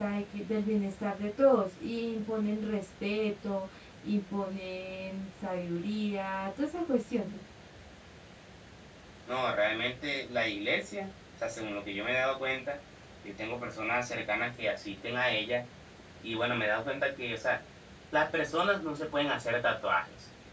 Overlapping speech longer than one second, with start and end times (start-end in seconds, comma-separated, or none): none